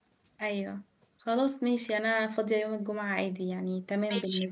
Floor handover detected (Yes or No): Yes